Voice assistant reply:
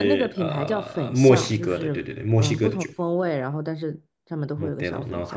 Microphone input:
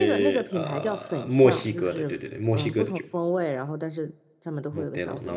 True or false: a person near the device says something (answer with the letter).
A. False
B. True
A